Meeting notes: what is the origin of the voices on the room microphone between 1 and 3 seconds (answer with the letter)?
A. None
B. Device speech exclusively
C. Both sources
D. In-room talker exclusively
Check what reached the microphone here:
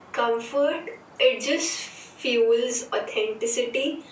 B